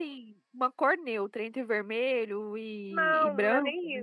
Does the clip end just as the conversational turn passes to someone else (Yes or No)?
Yes